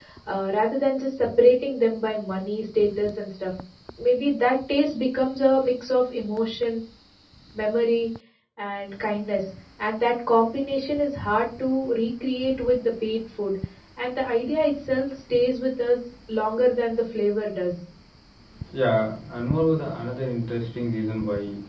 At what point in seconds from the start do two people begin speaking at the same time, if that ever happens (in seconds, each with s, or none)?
none